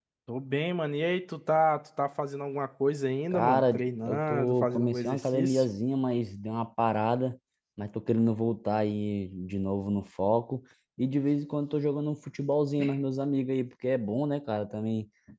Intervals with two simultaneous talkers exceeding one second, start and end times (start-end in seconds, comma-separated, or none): 3.3-5.7